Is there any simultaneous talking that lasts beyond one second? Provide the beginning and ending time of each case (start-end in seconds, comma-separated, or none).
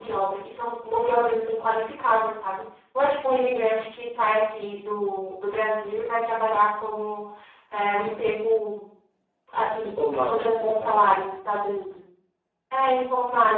9.8-11.1